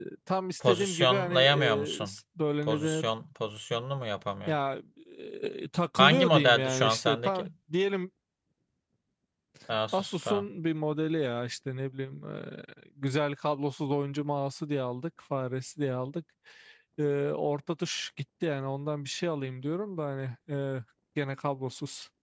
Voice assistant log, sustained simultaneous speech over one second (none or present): present